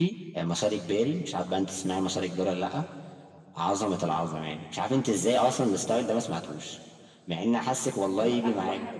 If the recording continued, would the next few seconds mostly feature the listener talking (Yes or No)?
Yes